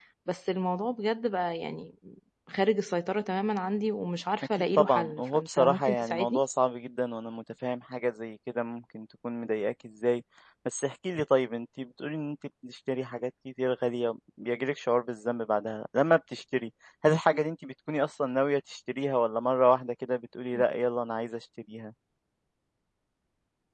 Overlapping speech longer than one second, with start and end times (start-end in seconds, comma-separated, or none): 4.4-6.4